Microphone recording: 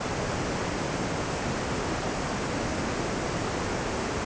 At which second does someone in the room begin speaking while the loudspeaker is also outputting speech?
none

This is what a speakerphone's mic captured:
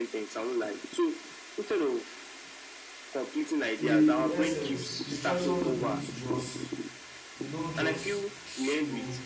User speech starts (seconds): 3.8 s

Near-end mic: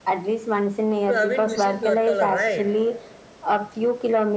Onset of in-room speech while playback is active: 1.1 s

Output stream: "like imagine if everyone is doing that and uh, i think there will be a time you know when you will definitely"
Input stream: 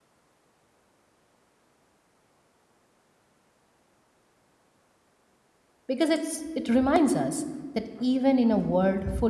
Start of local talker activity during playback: 5.9 s

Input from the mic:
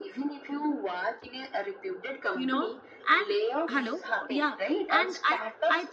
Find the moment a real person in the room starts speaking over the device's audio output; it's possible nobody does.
2.4 s

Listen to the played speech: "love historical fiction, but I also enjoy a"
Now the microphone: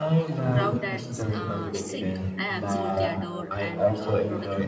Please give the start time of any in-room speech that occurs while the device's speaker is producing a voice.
0.5 s

